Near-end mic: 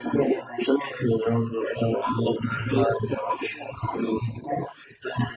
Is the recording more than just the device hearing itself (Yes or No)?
No